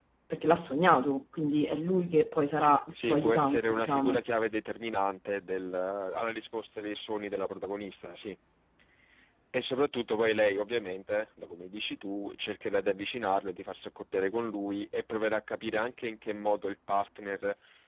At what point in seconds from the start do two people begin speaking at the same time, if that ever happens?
3 s

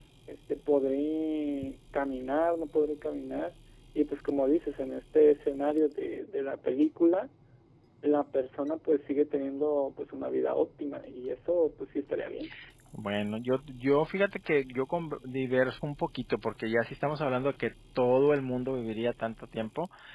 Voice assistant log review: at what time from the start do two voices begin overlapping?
none

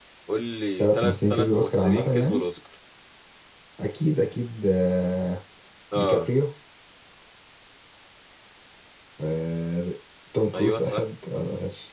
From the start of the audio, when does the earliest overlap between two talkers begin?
1 s

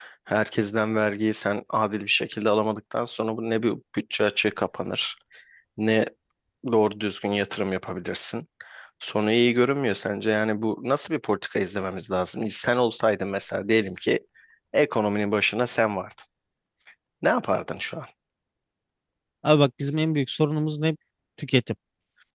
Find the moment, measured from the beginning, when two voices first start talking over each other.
none

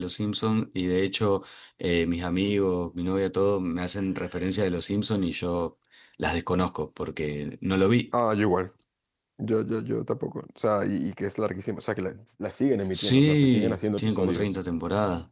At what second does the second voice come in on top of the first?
13 s

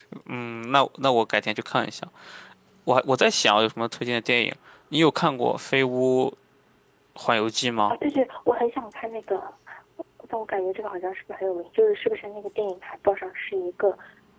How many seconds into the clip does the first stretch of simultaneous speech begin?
none

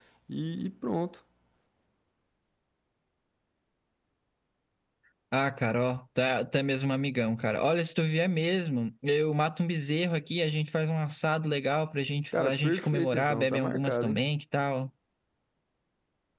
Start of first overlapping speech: 12 s

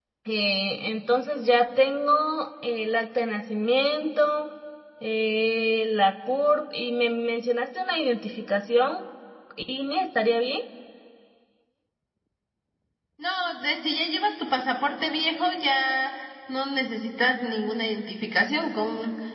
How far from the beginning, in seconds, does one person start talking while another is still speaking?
none

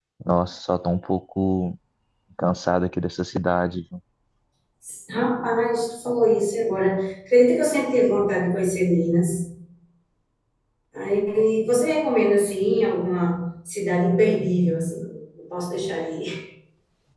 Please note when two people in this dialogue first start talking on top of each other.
none

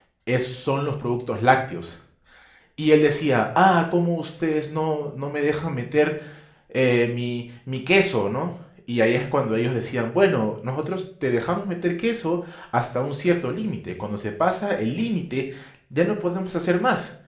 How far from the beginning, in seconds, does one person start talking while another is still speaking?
none

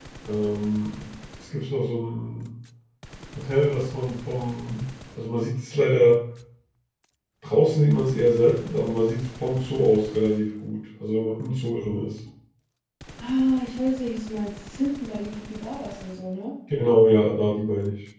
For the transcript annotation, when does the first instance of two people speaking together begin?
none

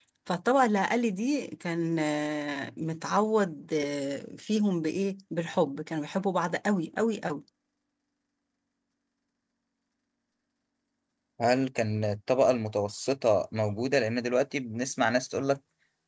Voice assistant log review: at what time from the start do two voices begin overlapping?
none

